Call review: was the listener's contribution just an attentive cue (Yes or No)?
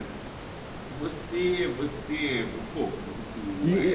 No